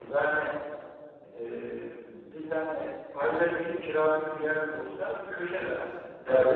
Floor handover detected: No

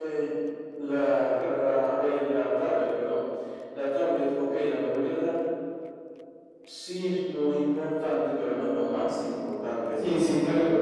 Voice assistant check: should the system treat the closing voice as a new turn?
Yes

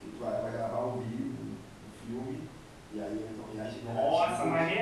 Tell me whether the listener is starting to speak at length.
Yes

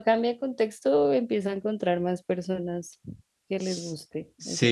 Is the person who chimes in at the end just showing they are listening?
No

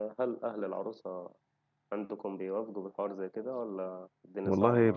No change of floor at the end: No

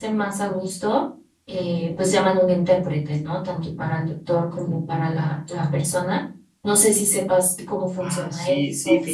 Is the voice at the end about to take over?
Yes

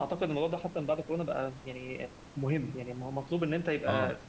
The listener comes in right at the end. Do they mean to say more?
No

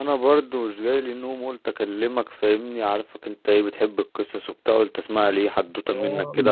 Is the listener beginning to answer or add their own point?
Yes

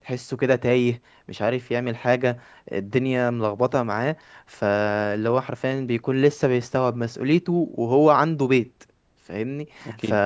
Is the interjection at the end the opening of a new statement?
No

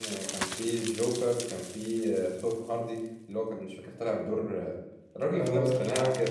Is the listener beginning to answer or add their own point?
Yes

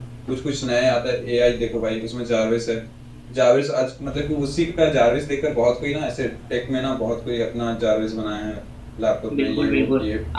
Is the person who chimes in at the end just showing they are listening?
No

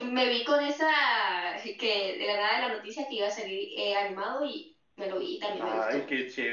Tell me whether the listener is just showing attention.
No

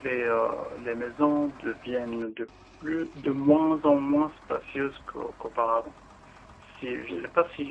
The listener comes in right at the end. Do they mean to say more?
No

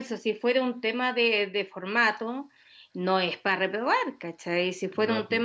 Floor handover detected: No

